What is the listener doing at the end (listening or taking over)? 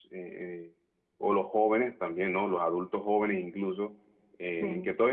listening